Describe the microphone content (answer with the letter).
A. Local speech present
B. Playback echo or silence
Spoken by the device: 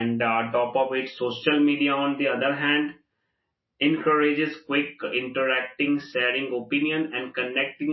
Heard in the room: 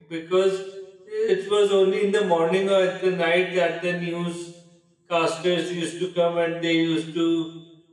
A